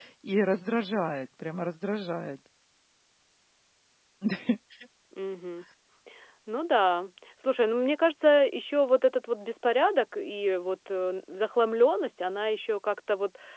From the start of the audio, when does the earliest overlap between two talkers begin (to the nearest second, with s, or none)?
none